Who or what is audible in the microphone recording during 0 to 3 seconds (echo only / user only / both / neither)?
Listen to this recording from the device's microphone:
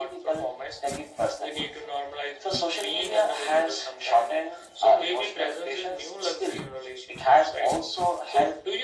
echo only